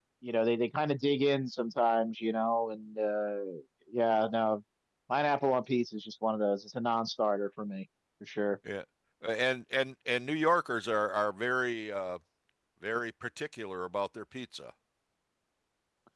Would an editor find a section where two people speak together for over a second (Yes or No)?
No